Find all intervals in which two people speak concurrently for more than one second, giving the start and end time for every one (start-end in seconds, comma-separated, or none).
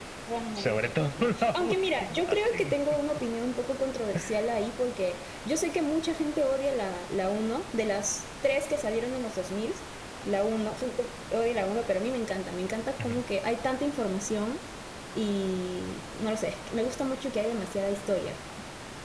0.6-2.8